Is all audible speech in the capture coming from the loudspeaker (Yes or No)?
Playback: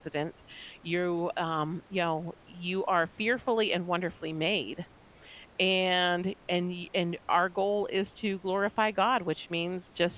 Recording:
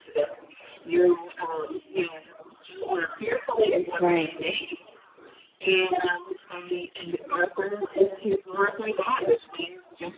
No